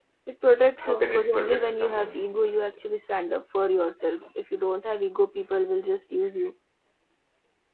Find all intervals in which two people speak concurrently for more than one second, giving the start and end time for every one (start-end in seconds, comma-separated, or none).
0.8-2.8